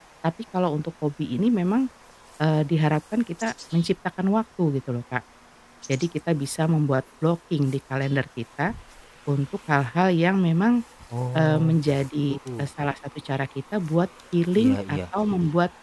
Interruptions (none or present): present